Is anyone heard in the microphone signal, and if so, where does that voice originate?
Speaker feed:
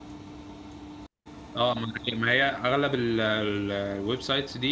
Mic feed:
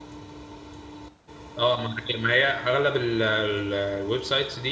echo only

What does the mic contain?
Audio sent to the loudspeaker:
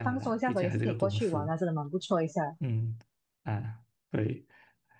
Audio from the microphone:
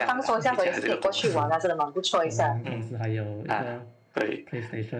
both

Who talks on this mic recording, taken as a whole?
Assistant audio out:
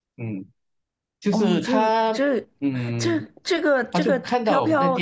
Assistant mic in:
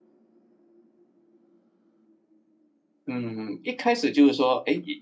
user only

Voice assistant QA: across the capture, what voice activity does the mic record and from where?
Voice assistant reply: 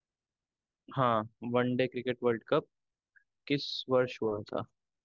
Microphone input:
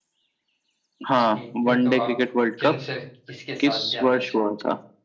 both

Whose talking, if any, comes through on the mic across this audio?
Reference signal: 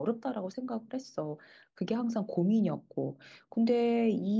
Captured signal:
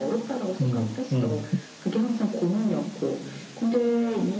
both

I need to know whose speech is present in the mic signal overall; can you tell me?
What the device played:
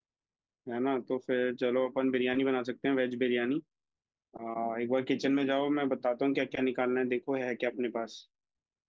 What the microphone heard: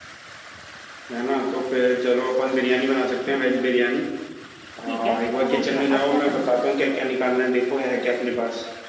both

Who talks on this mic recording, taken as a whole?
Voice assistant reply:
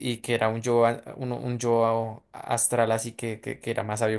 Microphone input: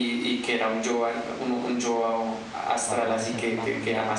both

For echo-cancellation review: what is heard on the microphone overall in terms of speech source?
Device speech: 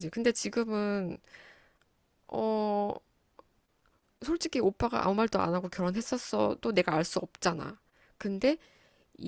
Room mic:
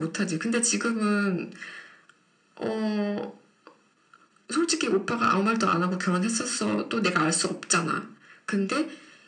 echo only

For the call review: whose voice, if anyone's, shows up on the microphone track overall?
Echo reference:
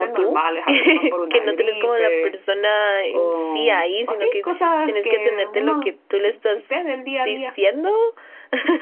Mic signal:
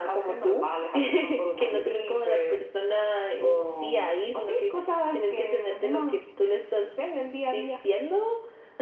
echo only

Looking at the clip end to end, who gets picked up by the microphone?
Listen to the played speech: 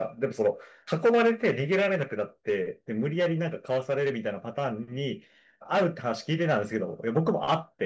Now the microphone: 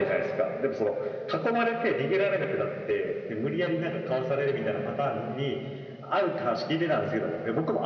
echo only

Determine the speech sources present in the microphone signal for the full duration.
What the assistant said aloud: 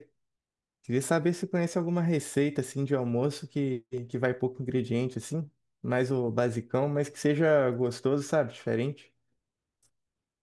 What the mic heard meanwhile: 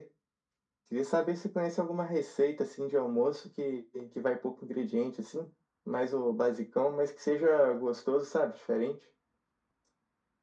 echo only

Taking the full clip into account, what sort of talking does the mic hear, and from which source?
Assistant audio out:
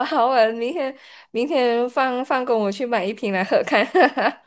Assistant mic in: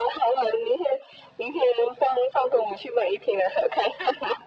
echo only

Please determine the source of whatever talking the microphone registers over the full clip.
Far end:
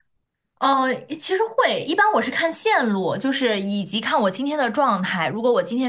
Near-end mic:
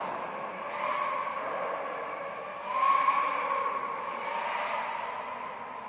neither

